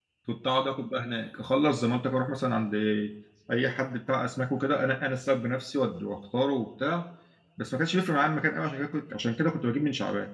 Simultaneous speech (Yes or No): No